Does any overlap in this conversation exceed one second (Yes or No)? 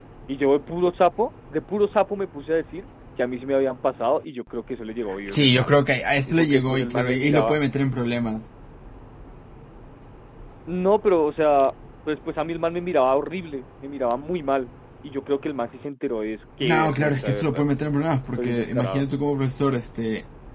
Yes